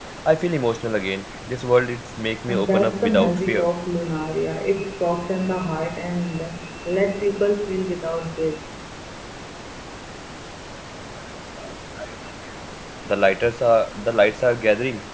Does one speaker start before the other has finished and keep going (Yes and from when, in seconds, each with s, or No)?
Yes, from 2.5 s